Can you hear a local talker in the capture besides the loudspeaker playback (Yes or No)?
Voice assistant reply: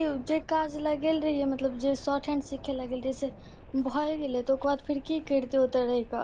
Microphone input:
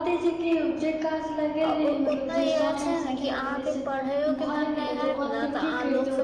Yes